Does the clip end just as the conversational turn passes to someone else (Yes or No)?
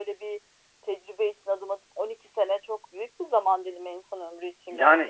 Yes